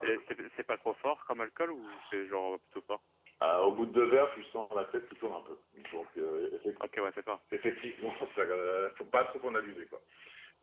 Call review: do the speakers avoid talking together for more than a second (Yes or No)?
Yes